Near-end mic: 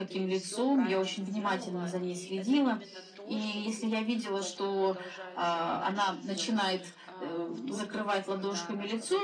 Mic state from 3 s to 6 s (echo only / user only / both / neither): both